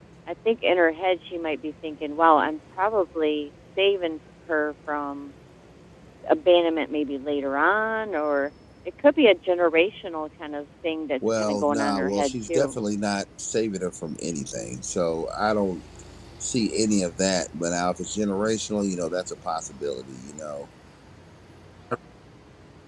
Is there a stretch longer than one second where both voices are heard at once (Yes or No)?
Yes